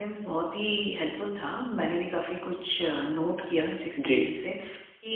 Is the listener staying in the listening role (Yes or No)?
Yes